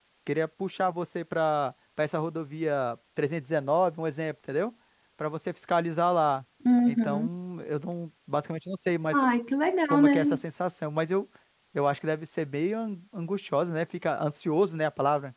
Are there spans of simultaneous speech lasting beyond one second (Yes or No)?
No